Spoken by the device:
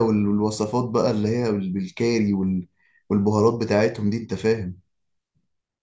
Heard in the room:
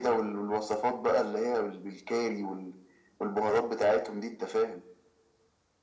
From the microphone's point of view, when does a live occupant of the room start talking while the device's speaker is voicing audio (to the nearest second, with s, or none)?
none